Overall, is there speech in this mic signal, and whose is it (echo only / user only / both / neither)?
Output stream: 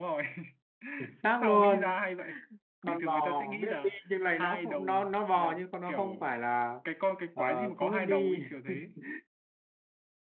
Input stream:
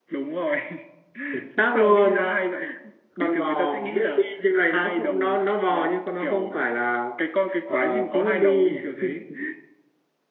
echo only